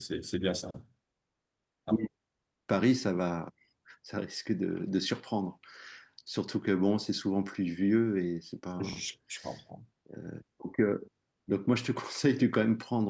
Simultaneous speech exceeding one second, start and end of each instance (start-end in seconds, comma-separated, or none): none